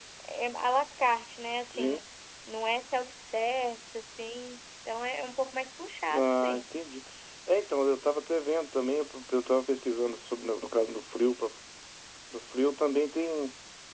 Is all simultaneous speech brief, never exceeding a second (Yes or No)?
Yes